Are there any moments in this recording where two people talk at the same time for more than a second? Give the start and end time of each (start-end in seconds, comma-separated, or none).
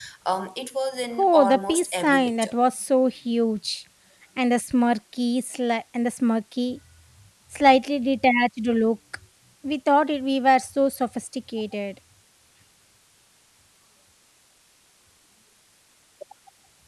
1.2-2.5